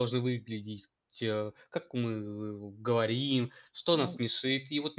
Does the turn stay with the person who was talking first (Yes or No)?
Yes